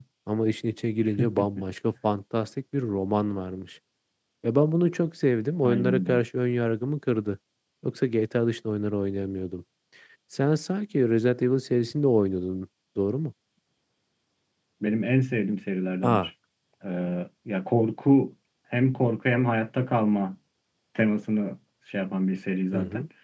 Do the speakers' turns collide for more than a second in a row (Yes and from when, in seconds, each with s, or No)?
No